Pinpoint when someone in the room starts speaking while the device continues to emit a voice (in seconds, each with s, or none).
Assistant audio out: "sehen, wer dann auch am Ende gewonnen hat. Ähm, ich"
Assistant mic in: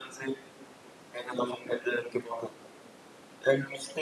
none